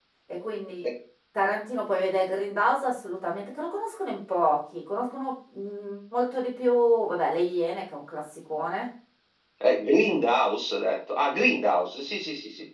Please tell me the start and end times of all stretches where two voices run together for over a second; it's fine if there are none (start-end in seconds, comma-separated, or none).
none